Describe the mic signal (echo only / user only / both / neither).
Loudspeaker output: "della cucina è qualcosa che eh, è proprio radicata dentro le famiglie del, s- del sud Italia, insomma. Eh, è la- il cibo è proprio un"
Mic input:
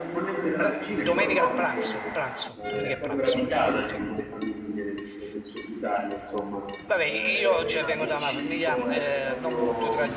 both